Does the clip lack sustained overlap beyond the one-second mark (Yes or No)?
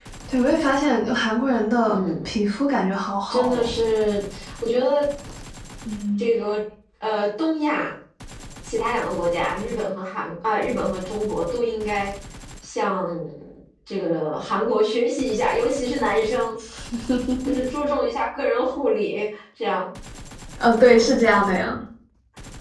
Yes